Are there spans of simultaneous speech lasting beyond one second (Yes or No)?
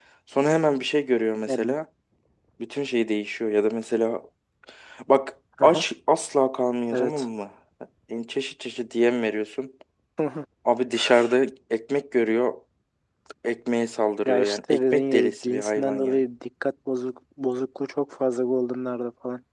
Yes